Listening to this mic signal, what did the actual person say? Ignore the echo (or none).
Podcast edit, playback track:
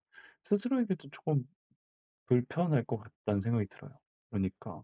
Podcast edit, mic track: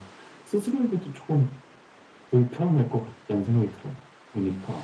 none